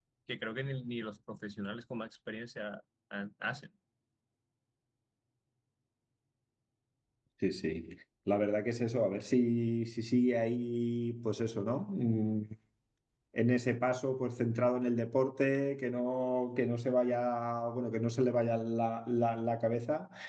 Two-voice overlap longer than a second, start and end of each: none

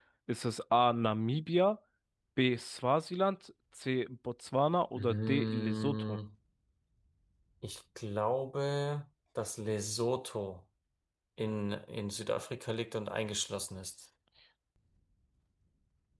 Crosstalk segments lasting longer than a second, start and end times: 5.0-6.2

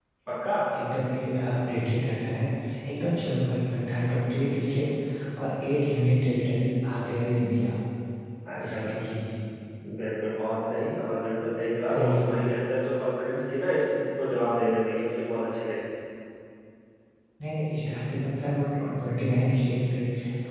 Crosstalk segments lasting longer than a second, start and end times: none

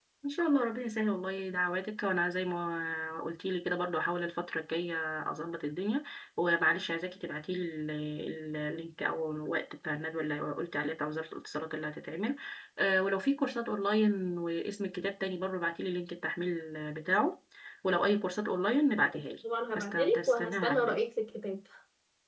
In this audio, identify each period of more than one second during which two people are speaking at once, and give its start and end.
19.7-21.0

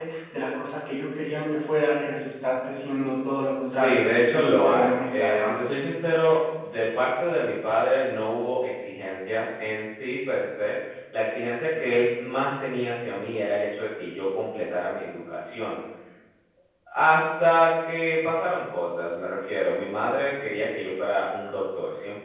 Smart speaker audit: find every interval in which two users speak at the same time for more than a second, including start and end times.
3.6-5.8

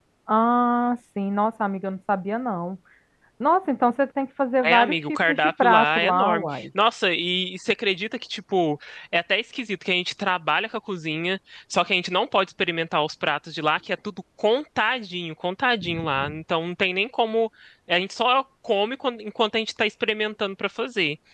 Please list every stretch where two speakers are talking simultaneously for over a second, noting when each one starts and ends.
4.6-6.7

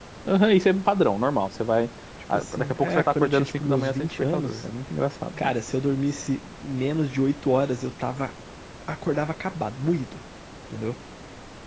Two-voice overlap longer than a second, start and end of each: 2.3-4.6

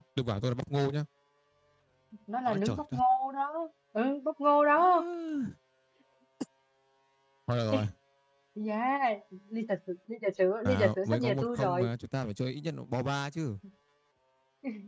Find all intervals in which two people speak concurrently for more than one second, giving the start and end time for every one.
10.7-11.9

